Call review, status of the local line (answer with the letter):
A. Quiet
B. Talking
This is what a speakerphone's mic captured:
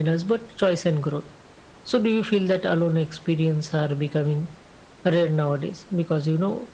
A